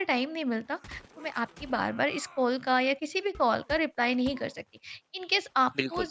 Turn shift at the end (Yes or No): No